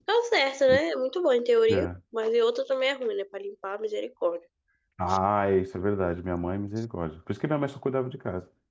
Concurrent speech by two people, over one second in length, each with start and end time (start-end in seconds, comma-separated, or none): none